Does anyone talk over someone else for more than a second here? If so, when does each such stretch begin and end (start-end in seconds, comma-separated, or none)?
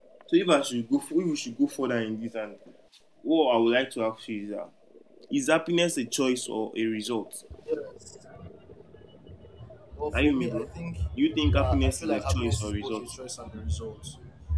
11.5-13.0